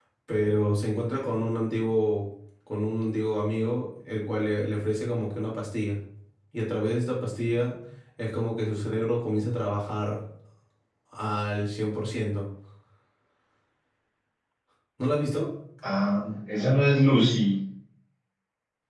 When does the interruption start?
none

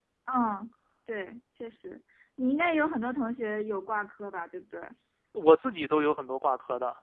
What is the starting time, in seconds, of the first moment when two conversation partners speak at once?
none

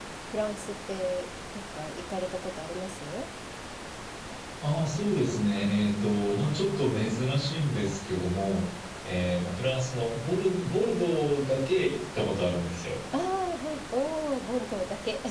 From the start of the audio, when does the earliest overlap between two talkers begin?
none

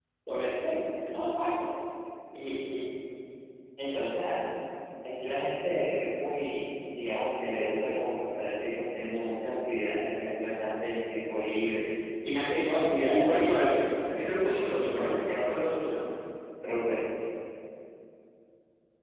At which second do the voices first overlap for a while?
13.0 s

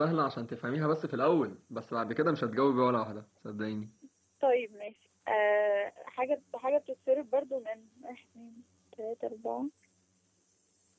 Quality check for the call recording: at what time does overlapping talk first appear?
none

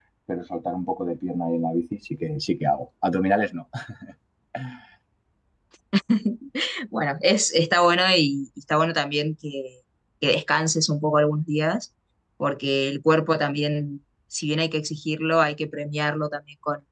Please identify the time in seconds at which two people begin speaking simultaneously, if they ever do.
none

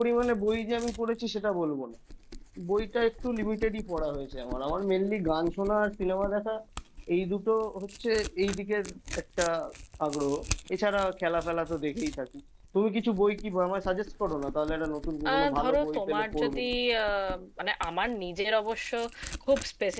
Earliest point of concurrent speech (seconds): 15.2 s

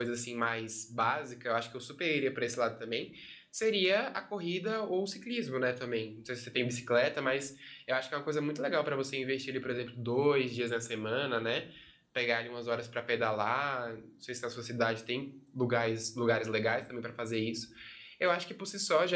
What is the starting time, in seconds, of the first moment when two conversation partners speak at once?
none

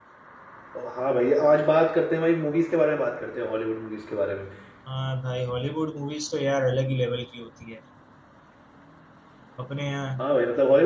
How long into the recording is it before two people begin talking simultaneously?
none

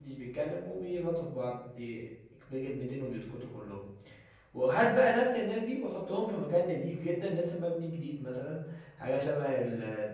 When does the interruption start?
none

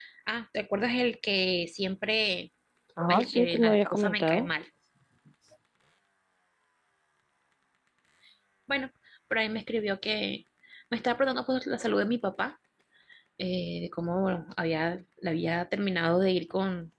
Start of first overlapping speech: 3.1 s

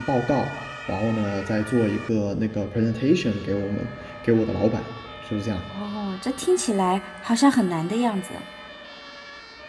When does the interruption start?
none

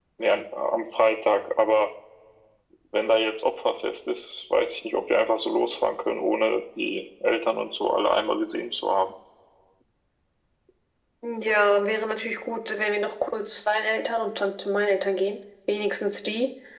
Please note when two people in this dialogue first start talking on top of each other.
none

